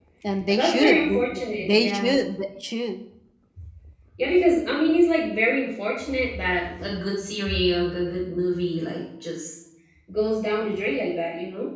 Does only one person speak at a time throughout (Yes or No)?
No